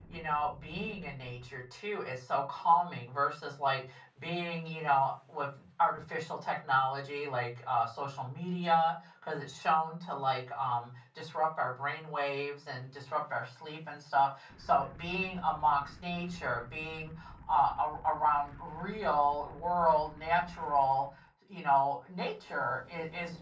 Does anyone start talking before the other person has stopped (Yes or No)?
No